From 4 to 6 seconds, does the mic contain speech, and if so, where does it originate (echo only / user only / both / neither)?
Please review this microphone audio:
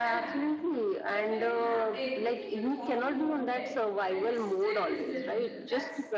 both